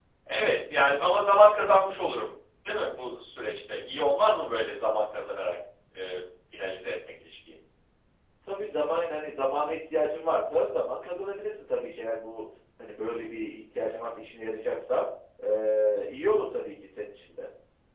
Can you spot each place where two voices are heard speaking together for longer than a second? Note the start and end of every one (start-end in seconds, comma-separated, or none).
none